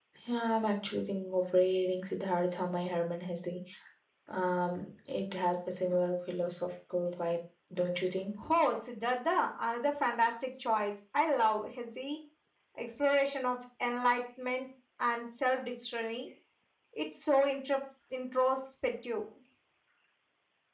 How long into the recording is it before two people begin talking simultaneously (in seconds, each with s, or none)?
none